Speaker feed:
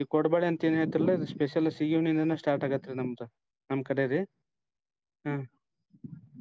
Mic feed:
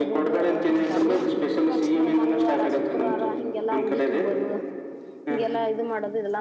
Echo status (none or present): present